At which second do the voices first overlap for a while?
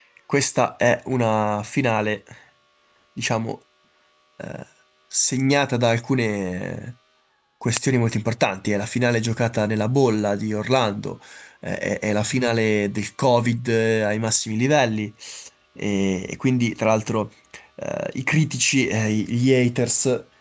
none

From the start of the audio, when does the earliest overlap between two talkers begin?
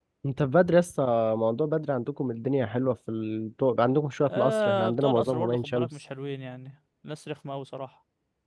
4 s

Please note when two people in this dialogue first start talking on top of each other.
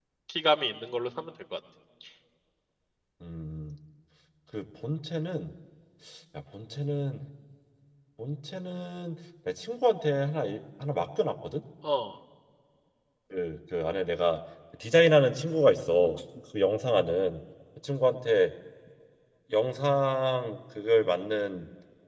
none

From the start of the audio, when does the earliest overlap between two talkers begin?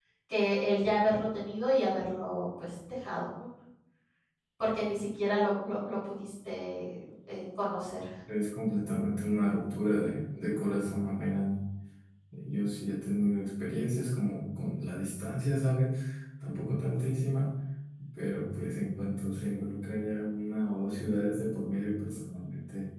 none

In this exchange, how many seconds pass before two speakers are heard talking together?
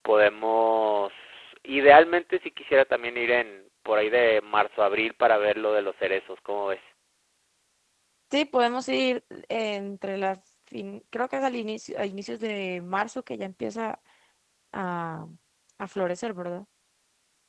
none

